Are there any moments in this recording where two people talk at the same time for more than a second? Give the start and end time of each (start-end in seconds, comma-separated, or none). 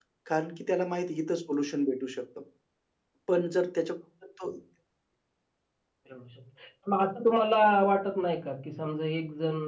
none